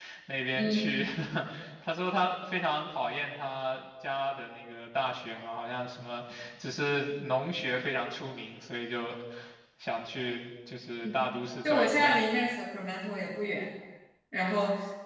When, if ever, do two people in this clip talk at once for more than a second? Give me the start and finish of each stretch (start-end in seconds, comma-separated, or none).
none